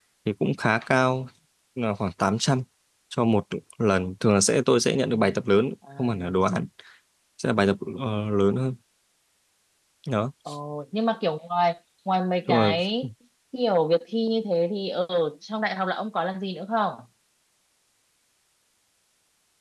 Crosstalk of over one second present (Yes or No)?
No